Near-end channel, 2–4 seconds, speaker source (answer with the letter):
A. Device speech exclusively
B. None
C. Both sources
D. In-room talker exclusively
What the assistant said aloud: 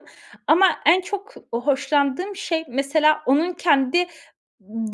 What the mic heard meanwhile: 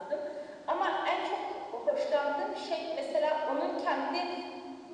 A